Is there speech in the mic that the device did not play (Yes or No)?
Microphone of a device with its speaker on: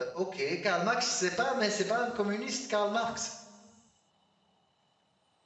Yes